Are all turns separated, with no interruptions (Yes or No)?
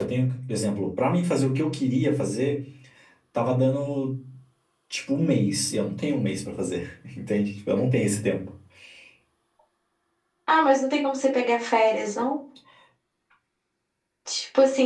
Yes